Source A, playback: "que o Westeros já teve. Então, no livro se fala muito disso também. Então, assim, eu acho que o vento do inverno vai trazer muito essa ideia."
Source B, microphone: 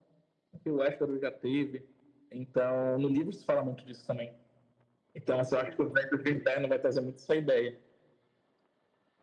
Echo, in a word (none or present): present